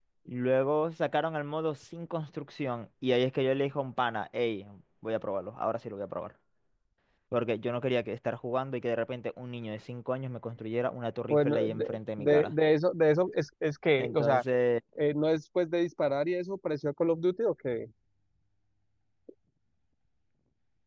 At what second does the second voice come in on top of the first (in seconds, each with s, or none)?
11.3 s